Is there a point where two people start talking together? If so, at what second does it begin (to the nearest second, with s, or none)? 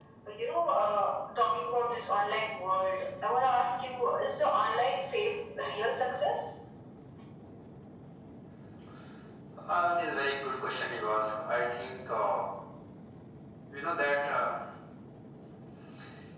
none